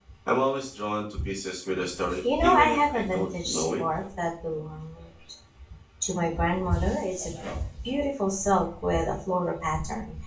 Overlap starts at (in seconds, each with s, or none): 2.2 s